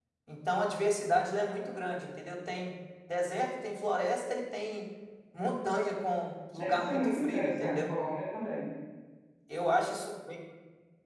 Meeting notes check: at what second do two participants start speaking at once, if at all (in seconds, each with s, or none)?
6.6 s